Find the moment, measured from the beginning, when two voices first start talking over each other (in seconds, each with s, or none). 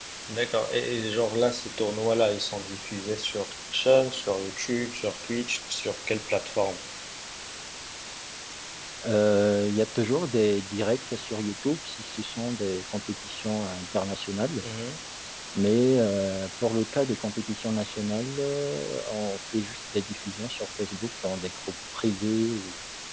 none